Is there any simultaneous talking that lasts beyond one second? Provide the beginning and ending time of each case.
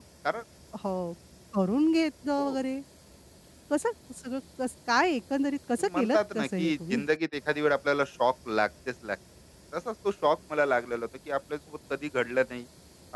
5.8-7.0

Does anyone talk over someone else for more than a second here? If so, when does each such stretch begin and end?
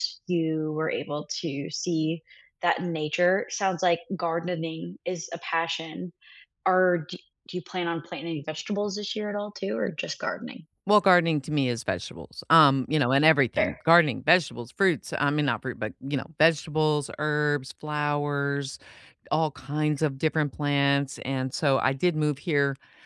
none

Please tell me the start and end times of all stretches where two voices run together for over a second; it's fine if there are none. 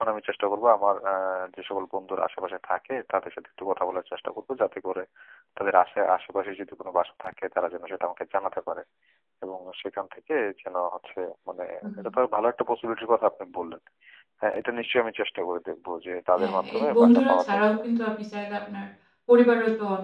16.4-17.7

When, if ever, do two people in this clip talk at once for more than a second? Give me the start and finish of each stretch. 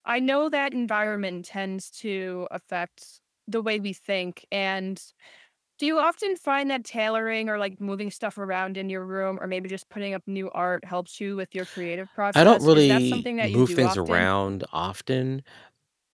12.3-14.3

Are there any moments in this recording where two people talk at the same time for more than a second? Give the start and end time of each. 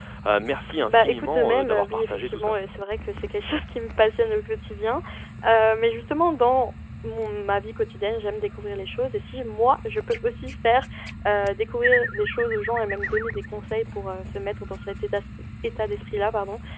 0.9-2.6

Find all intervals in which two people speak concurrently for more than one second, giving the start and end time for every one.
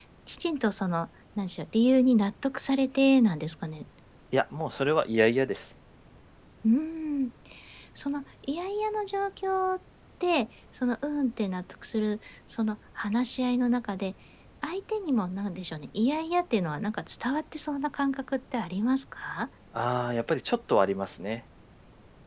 none

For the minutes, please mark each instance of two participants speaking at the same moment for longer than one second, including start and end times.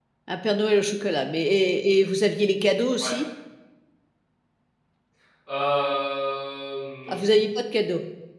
none

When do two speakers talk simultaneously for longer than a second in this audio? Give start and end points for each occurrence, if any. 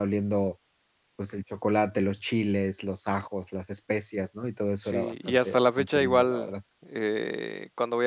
4.8-6.5

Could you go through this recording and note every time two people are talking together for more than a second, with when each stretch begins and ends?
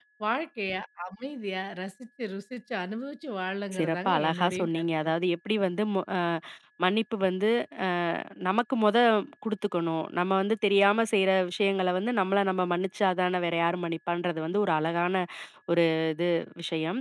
3.8-5.1

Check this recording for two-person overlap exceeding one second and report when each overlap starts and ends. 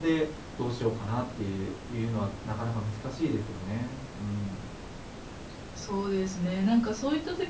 none

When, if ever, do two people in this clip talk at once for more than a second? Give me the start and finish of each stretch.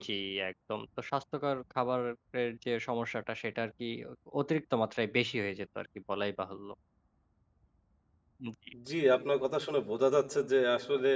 none

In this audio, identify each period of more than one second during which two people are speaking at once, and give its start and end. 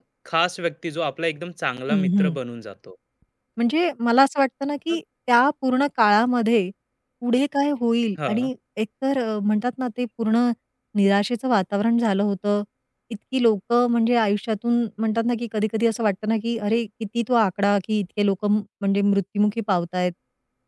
none

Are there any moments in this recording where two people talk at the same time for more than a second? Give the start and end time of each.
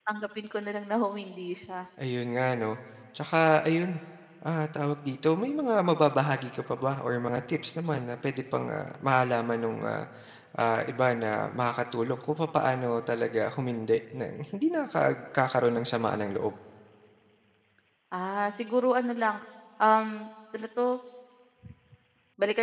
none

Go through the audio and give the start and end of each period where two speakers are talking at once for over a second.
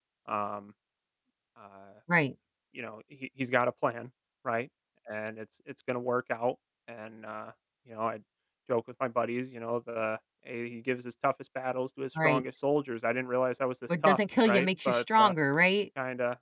14.0-15.3

